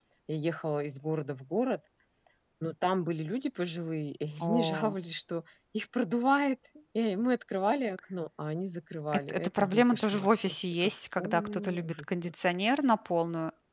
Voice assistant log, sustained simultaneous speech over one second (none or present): present